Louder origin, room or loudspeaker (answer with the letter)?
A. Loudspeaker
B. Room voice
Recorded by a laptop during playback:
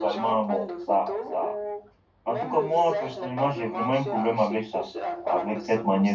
B